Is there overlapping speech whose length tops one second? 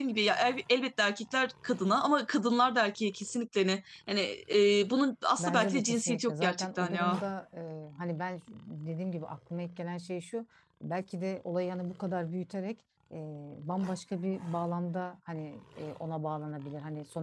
Yes, from 5.4 s

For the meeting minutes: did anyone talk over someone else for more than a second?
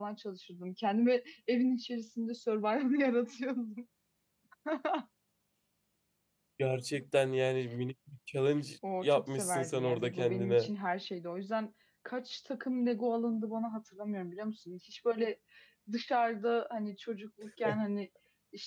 Yes, from 8.8 s

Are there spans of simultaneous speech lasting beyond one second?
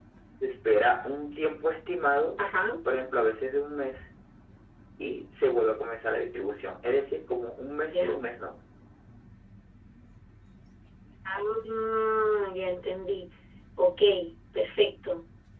No

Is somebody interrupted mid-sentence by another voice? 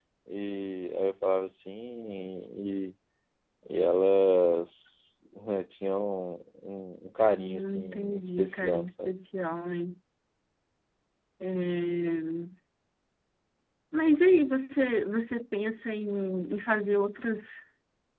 Yes, from 7.4 s

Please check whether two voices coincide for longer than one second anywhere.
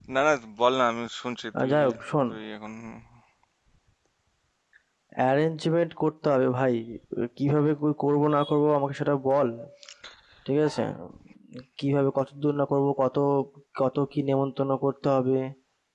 No

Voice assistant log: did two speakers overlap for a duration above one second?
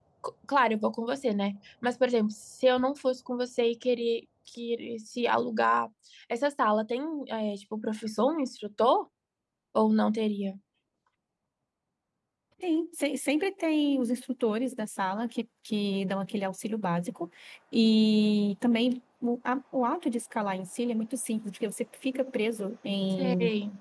No

